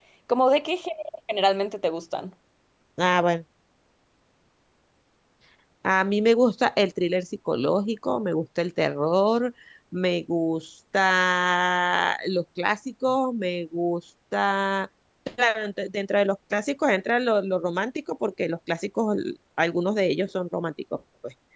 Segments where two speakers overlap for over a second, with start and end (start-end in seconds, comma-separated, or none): none